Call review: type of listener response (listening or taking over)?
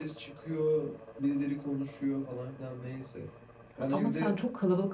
taking over